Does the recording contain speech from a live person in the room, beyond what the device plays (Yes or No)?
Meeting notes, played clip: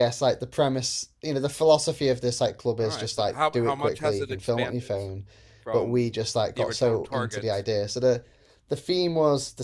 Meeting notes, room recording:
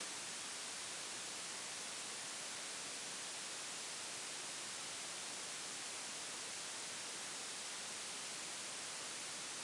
No